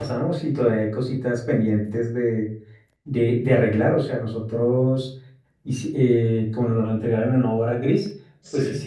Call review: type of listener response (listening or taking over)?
listening